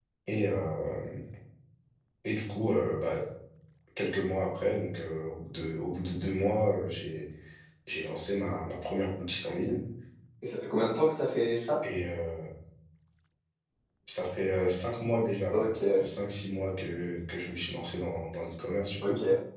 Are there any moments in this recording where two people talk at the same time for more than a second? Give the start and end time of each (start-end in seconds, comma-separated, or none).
none